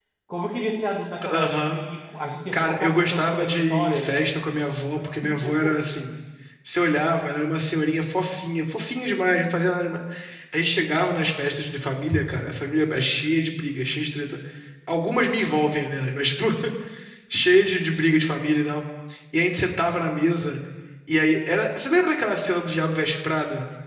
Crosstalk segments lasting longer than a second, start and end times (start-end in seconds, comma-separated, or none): 2.5-4.1